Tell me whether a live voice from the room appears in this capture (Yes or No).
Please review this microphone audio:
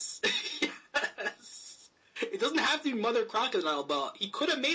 No